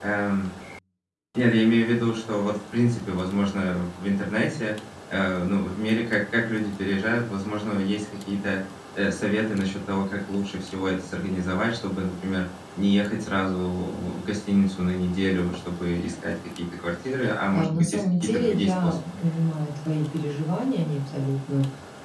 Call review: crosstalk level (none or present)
present